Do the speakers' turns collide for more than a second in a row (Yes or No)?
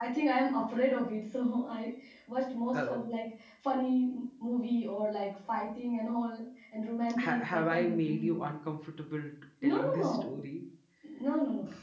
Yes